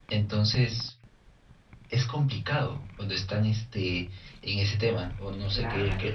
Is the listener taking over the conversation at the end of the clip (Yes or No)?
Yes